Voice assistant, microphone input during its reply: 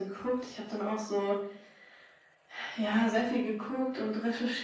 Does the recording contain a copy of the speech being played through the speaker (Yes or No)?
Yes